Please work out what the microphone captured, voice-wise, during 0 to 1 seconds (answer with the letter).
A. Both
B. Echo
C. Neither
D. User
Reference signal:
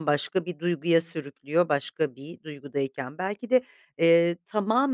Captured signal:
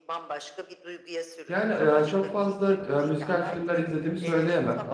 B